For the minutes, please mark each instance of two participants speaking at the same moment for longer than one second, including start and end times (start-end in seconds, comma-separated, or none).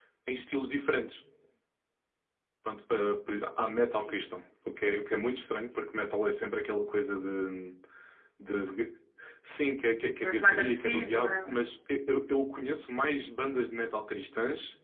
10.2-11.6